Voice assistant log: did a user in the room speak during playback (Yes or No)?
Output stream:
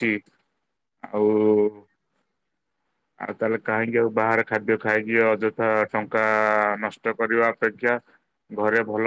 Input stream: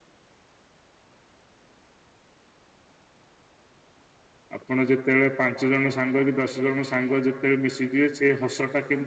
Yes